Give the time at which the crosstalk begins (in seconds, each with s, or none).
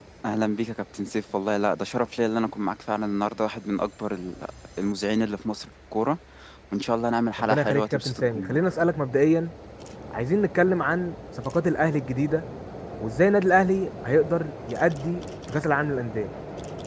7.4 s